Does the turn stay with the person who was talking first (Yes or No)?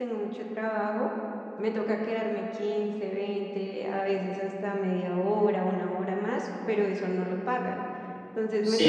No